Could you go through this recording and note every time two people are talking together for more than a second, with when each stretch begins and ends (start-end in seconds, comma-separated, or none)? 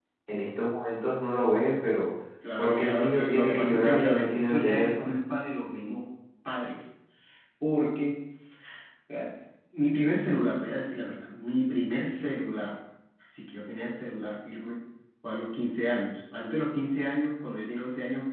2.6-5.2